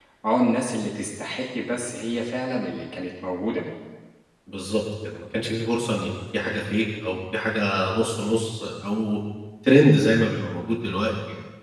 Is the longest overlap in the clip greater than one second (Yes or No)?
No